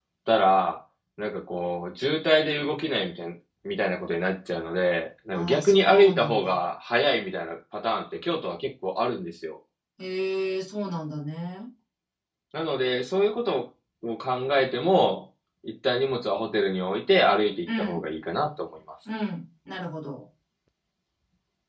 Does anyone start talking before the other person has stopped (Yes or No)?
Yes